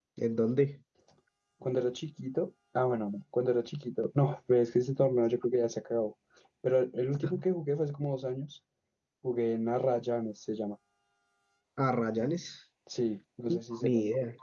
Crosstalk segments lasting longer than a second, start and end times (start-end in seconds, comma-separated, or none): none